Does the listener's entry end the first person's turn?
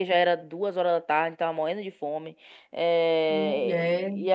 No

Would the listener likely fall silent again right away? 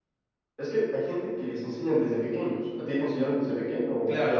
No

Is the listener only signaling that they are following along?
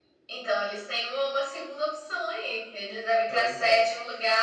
Yes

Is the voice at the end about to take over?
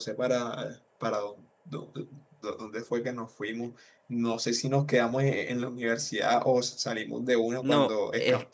Yes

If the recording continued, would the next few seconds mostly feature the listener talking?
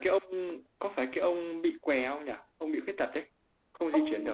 Yes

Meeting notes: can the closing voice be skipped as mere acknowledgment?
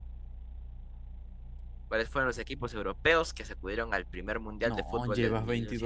No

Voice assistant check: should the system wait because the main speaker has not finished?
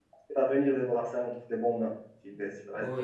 No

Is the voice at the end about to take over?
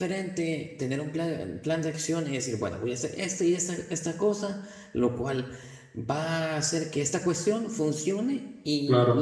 No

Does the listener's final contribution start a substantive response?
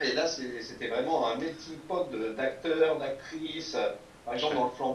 No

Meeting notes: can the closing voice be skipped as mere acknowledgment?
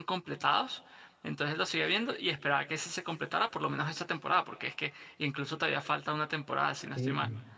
No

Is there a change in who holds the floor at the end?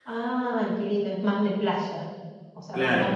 Yes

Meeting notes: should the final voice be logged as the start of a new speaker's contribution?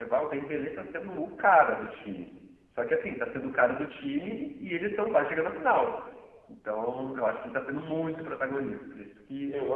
No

